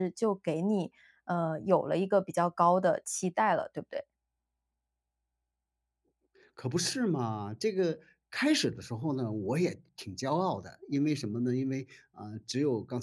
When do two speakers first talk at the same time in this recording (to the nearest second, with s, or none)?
none